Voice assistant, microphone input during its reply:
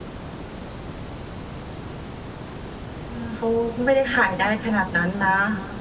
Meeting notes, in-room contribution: present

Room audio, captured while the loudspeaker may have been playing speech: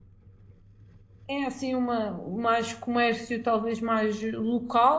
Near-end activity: present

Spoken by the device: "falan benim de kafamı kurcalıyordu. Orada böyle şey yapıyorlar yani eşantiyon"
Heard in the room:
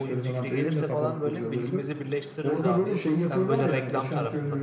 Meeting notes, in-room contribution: present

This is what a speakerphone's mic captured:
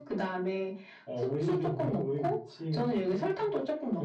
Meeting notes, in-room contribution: none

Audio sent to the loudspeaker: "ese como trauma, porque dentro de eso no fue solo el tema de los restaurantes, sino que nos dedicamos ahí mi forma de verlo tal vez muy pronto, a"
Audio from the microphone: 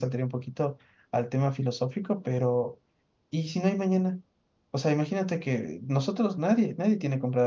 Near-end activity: present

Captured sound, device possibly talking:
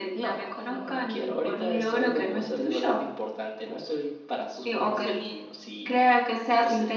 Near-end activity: none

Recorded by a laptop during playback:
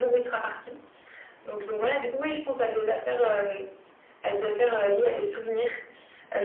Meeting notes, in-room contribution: none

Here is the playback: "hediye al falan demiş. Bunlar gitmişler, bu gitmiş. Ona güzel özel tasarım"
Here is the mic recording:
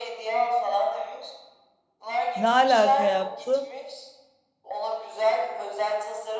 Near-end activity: present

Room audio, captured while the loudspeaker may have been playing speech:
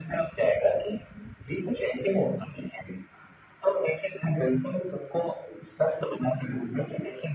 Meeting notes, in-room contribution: none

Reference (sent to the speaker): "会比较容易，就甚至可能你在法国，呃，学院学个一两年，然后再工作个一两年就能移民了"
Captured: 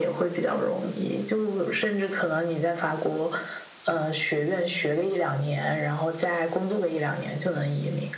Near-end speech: none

